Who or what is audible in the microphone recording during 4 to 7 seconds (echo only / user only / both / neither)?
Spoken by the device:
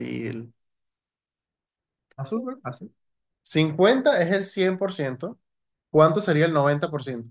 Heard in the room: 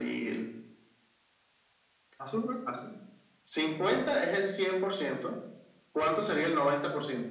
echo only